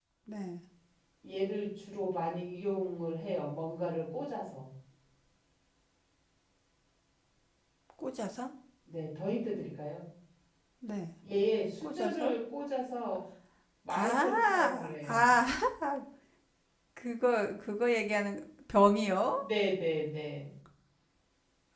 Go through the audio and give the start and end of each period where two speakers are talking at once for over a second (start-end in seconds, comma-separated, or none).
13.9-15.3